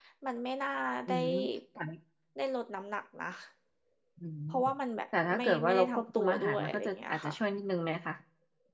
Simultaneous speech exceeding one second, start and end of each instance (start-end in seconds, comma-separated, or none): 5.2-7.3